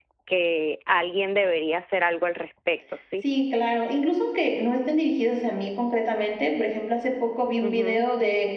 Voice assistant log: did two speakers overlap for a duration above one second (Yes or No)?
No